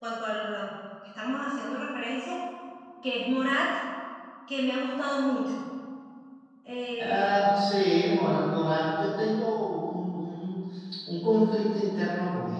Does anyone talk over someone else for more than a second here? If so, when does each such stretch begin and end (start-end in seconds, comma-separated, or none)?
none